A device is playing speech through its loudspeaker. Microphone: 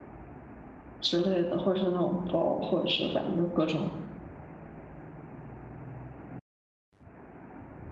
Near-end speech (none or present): present